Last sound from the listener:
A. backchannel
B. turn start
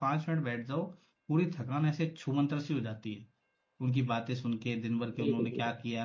A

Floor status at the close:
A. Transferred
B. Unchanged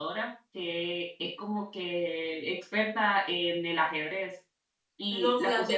A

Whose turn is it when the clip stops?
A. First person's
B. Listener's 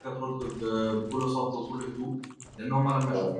A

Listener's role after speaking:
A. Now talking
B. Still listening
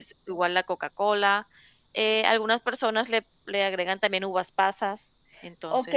A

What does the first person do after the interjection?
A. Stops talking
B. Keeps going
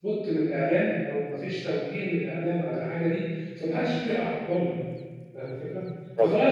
B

